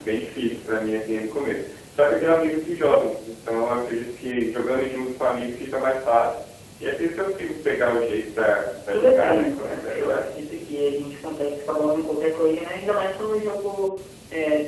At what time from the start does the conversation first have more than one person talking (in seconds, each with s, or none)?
8.9 s